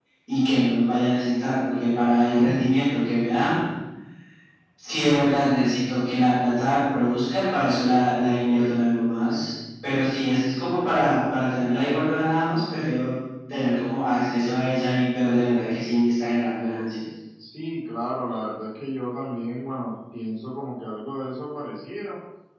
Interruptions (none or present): none